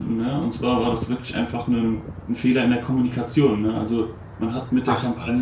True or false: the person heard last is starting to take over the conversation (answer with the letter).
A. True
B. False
B